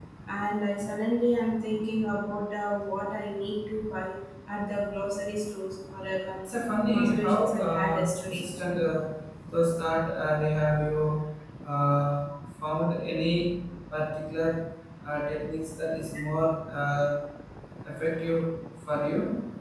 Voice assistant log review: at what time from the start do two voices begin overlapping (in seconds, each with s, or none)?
6.9 s